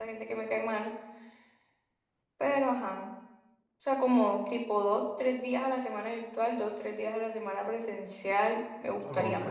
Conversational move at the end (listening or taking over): taking over